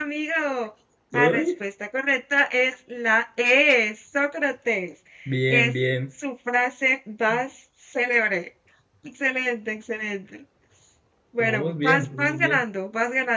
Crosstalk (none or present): present